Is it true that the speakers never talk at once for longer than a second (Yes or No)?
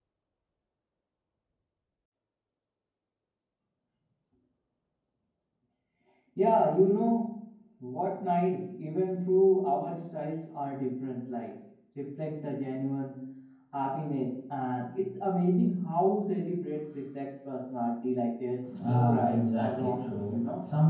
No